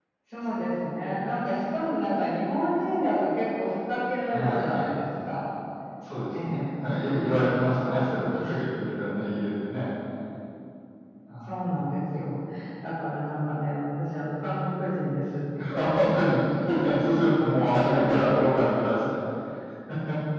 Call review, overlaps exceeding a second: present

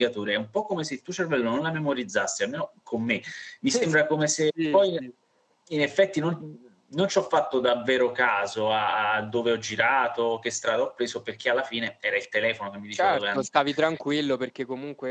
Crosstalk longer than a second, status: none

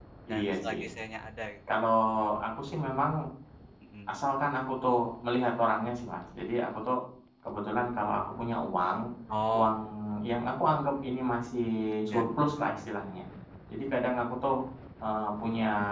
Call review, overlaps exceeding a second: none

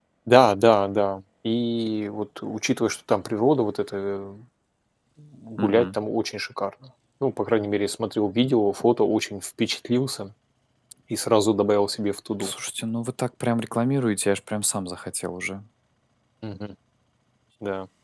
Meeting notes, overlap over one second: none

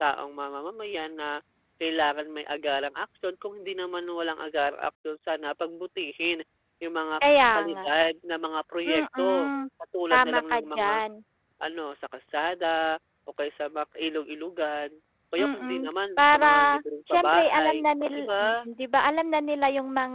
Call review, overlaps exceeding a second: present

